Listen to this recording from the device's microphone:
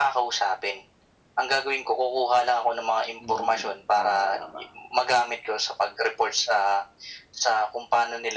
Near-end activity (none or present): present